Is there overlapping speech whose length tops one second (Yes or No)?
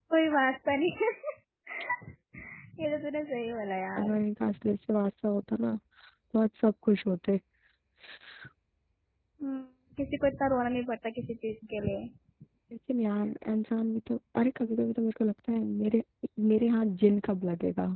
No